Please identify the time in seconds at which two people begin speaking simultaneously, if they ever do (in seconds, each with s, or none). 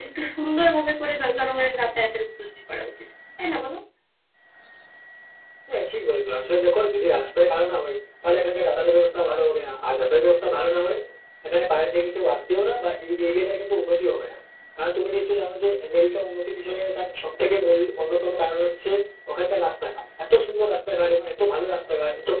none